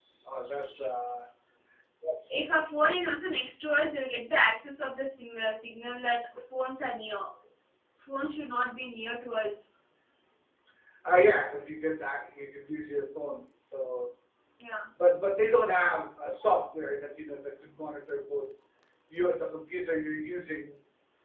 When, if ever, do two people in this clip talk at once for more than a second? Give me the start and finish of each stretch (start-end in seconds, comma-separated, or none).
none